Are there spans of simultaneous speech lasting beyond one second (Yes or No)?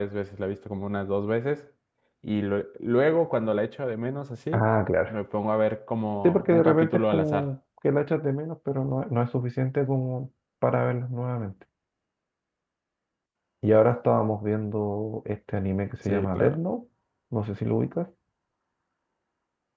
Yes